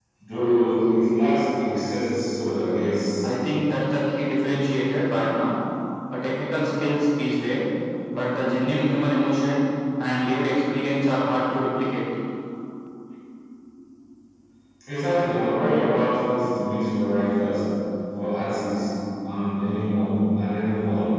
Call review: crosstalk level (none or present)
none